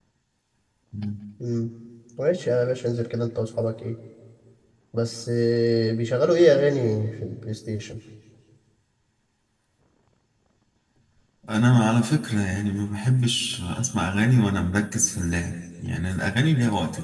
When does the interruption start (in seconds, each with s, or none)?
none